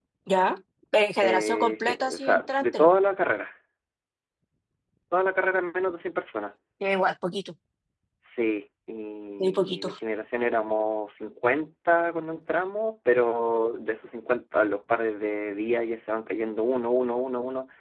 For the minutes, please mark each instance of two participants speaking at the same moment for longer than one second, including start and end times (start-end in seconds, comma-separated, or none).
1.2-2.9